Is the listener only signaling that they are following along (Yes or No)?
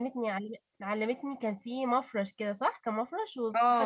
No